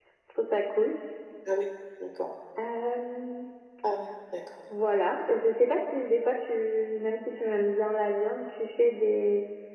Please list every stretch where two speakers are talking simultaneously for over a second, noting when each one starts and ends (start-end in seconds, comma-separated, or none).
none